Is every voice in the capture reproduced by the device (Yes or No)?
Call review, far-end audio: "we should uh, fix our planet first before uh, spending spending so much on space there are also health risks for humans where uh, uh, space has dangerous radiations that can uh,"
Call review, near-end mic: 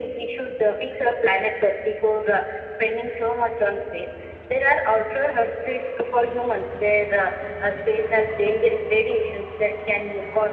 Yes